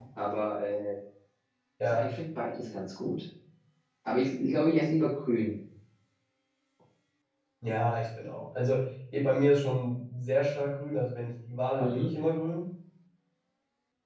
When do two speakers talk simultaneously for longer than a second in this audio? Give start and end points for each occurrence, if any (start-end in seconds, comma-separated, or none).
none